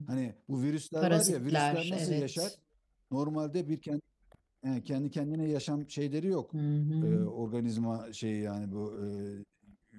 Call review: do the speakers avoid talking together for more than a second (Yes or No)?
No